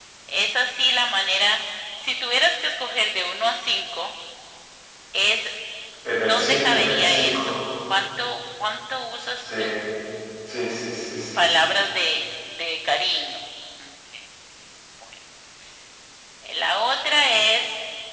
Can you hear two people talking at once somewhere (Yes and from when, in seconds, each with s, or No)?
Yes, from 6.3 s